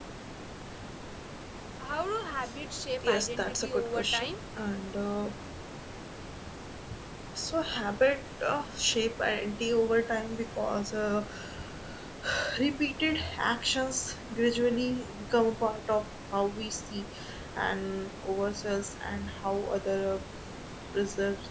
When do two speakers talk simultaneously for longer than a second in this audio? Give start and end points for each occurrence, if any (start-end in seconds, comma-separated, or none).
3.0-4.3